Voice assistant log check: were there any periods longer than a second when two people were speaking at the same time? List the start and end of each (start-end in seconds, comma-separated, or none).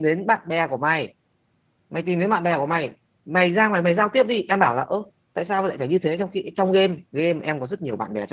none